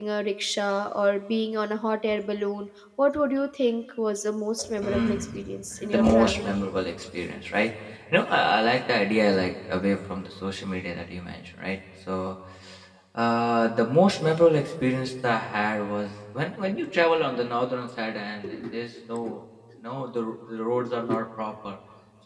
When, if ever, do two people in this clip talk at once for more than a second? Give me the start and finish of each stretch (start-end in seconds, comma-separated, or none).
4.6-6.5